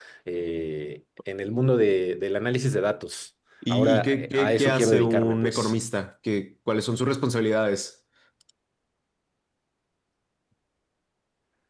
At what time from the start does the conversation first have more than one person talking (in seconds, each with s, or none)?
3.6 s